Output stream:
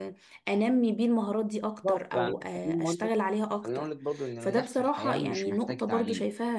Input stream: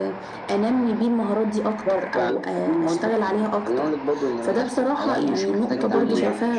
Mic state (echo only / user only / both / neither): both